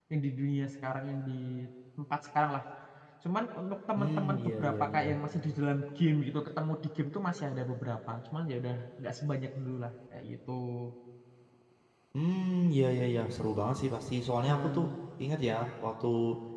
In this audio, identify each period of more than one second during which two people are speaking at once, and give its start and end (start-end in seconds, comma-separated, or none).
4.0-5.2